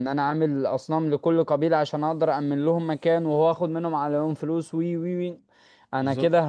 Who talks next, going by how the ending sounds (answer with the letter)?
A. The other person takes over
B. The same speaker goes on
B